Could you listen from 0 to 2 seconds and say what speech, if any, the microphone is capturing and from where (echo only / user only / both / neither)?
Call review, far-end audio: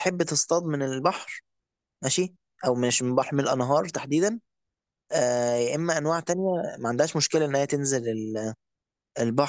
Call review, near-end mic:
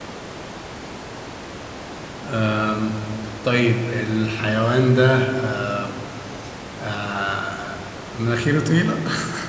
neither